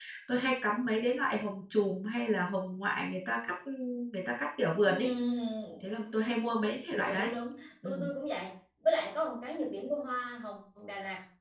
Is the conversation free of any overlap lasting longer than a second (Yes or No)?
Yes